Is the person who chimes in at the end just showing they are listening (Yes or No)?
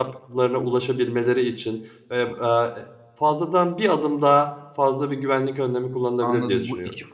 No